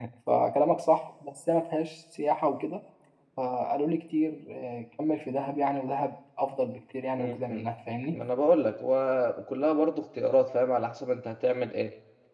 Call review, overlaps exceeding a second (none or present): none